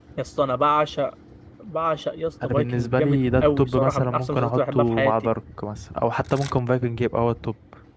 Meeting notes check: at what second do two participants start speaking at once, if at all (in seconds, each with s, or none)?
2.4 s